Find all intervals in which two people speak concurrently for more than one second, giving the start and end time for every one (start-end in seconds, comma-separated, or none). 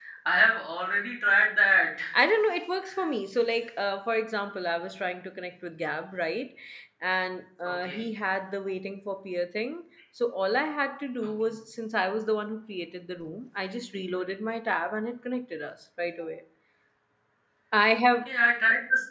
none